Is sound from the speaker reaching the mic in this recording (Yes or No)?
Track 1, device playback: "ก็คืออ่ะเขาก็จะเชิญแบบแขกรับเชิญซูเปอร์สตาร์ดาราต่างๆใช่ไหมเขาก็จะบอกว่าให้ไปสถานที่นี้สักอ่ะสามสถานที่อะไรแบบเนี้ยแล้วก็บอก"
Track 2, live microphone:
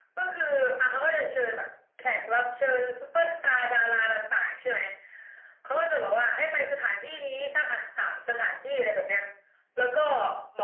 Yes